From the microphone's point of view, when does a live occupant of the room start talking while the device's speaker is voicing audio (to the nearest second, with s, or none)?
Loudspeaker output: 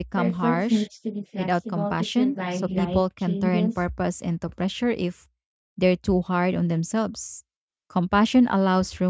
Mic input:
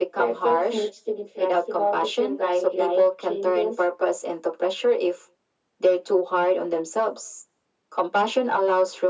none